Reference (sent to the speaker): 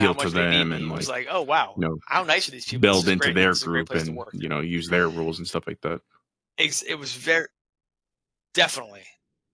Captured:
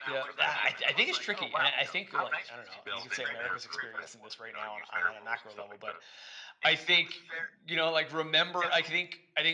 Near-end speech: present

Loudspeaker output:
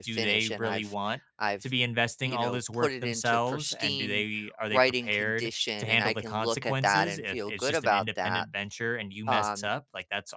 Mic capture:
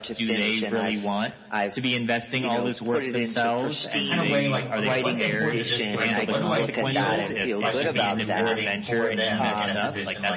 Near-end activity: present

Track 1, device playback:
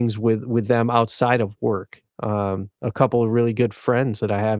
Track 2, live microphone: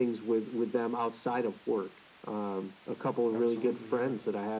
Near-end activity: present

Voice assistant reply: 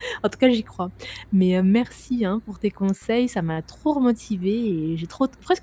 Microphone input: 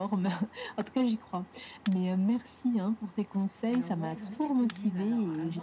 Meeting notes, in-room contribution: present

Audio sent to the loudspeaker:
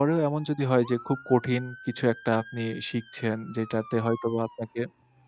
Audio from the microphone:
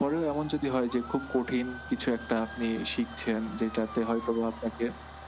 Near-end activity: none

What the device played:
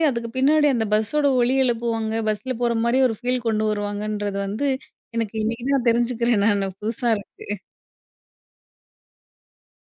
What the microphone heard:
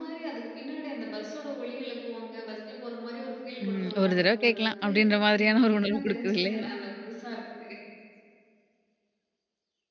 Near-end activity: present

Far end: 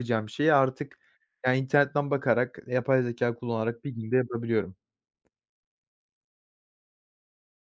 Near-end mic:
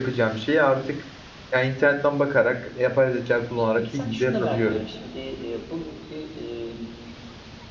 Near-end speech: present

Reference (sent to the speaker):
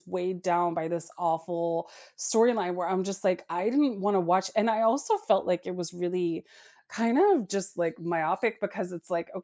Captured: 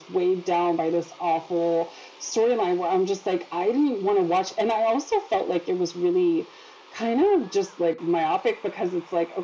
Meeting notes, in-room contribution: none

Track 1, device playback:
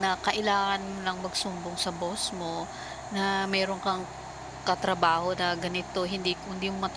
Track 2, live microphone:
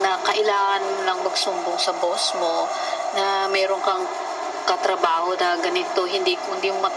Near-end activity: none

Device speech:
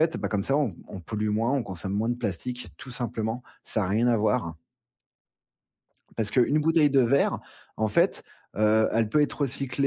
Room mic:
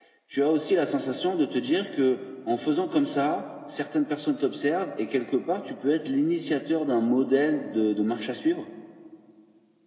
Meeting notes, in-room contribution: present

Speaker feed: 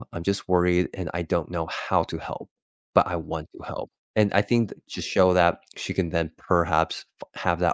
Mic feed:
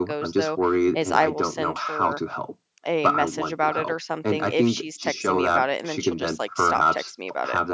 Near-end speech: present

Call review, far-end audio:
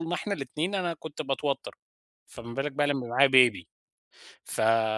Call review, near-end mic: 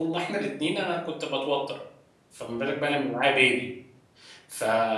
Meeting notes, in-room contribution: none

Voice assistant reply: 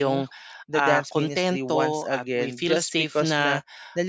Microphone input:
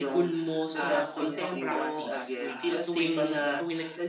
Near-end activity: present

